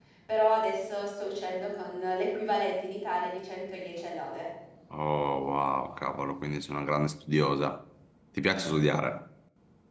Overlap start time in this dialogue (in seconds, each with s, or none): none